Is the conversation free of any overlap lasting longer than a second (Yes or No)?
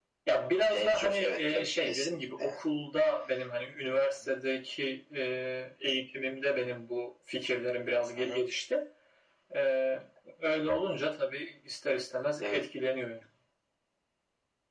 No